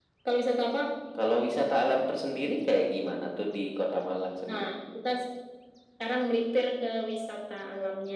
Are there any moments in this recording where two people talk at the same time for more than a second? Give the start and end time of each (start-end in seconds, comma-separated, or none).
none